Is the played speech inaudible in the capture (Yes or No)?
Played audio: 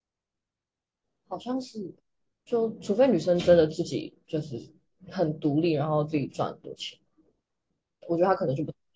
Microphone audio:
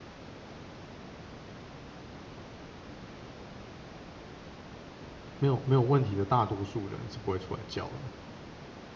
Yes